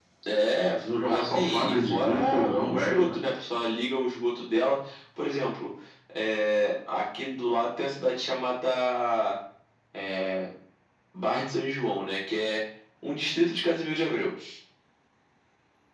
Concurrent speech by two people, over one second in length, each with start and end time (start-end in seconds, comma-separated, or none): 0.9-3.2